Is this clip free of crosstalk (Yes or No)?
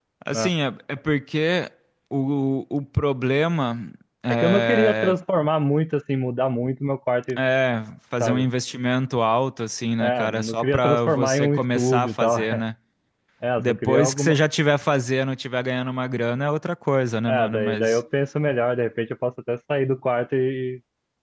No